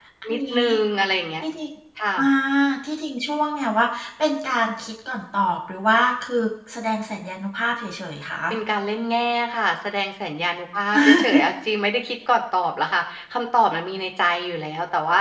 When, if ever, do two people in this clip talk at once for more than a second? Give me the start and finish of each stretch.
none

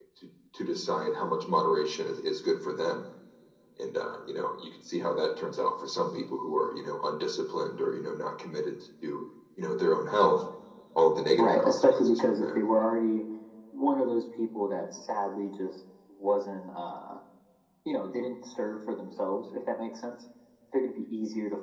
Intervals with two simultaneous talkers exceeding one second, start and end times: 11.4-12.6

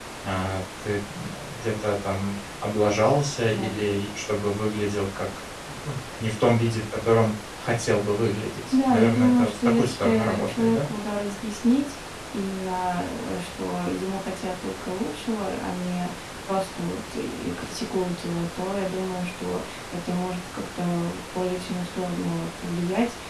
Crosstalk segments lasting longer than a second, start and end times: 8.7-10.9

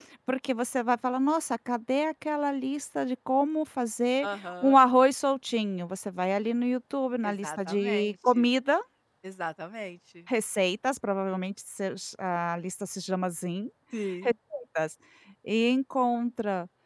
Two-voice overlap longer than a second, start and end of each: 7.2-8.4

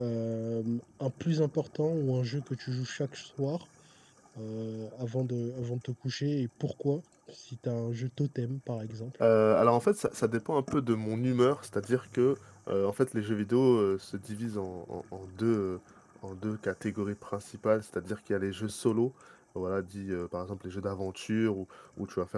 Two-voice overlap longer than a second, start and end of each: none

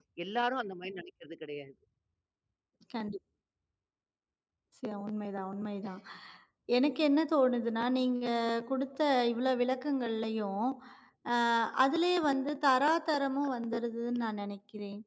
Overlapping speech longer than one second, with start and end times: none

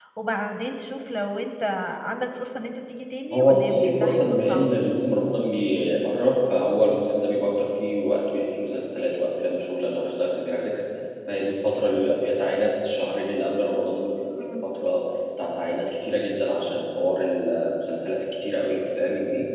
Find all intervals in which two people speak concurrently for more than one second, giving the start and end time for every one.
3.3-4.7

